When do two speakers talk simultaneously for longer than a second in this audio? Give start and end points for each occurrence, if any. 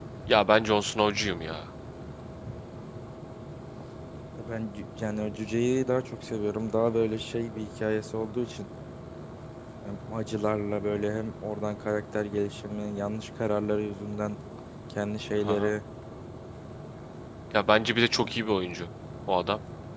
none

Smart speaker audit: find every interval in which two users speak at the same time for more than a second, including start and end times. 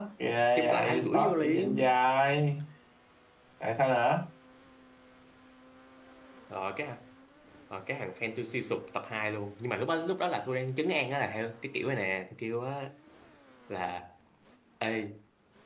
0.6-1.9

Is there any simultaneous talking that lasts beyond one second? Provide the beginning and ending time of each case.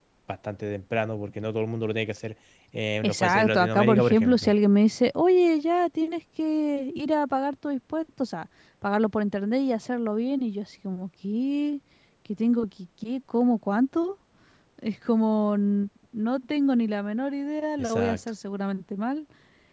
3.0-4.5

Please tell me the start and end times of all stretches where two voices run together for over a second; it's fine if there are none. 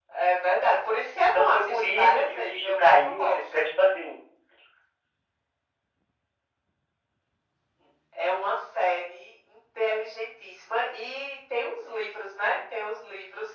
1.4-3.4

